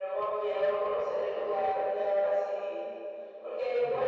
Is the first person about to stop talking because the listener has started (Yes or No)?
No